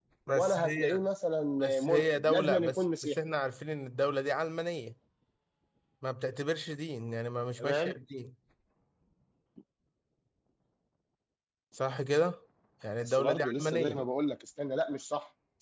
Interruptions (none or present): present